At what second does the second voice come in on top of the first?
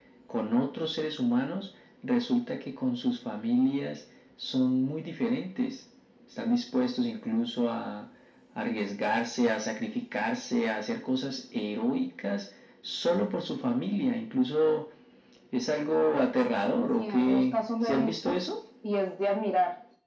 17 s

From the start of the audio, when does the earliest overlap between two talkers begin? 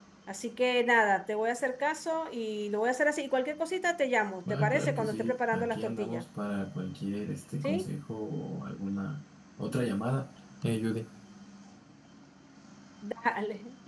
4 s

